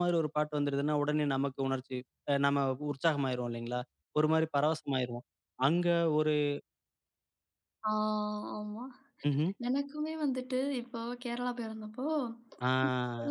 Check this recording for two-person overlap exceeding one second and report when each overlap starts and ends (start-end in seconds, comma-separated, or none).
none